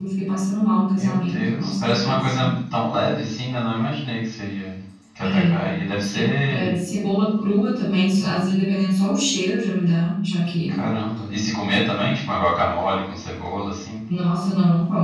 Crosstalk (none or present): present